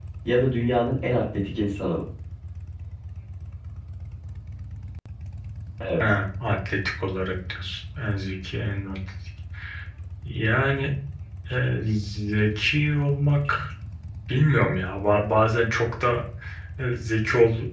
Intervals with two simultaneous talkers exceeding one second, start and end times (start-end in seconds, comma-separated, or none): none